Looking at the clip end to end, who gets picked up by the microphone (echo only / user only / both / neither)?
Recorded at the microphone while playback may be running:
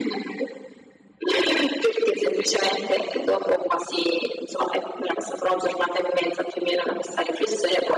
echo only